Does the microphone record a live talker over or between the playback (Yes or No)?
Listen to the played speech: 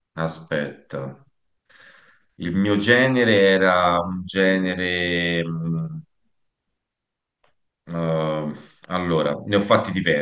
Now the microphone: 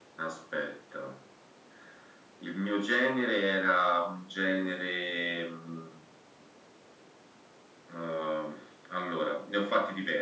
No